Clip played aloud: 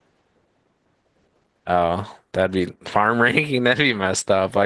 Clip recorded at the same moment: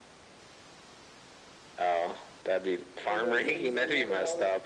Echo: present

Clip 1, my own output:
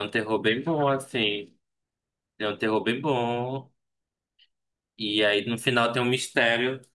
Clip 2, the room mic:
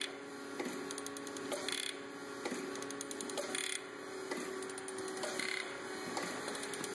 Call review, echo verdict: none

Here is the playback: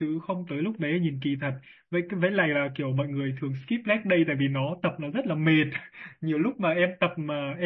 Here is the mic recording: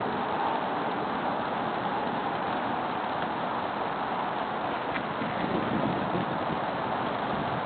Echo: none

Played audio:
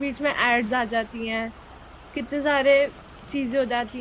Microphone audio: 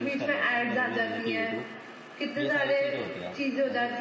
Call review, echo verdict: present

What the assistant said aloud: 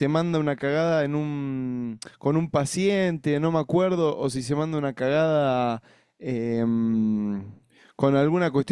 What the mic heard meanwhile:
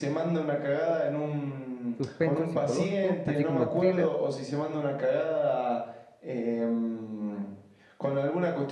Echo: present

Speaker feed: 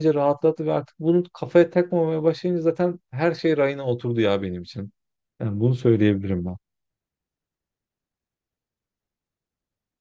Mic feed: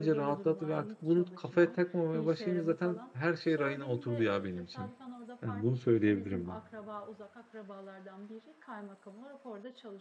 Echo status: present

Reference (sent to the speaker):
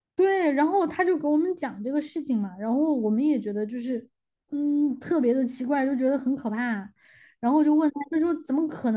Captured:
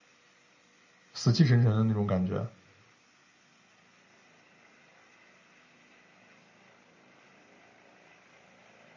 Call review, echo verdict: none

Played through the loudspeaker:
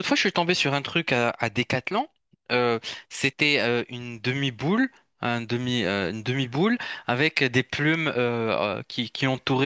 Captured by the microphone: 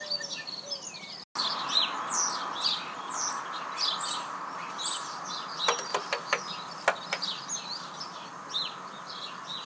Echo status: none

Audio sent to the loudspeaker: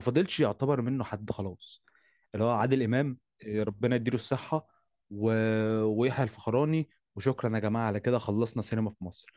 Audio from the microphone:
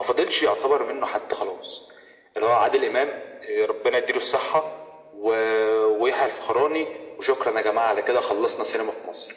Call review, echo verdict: present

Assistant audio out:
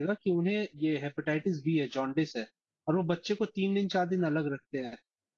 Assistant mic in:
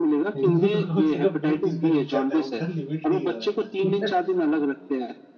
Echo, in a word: present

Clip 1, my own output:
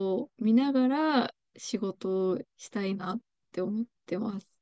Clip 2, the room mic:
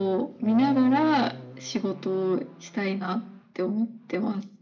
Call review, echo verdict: present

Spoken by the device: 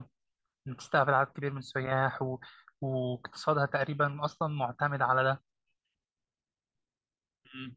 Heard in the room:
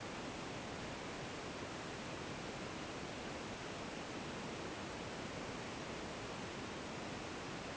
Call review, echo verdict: none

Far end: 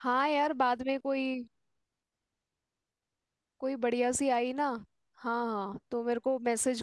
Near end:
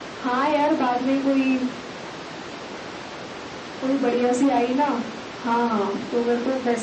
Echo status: present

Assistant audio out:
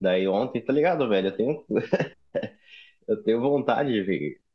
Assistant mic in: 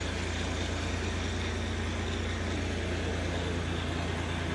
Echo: none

